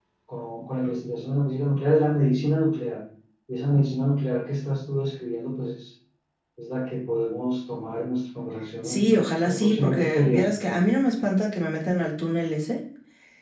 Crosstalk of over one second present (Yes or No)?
Yes